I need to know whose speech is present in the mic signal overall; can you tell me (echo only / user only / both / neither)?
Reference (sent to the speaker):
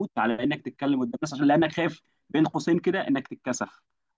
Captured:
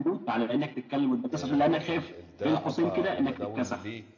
both